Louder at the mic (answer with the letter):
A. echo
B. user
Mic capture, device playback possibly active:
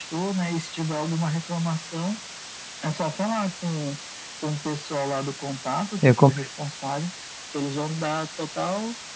B